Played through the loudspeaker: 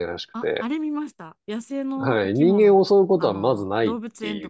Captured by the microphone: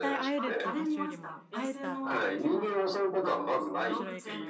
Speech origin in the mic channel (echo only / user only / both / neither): both